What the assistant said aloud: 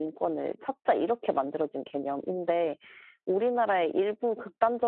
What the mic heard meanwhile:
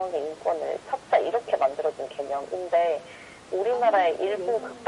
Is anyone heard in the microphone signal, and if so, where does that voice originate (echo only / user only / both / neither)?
both